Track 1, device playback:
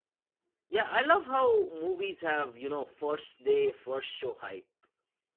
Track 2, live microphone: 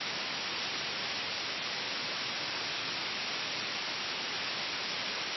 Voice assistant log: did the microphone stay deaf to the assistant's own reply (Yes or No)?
Yes